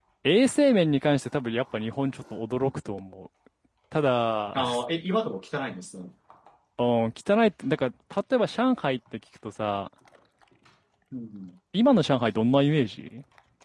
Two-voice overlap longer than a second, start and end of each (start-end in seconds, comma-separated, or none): none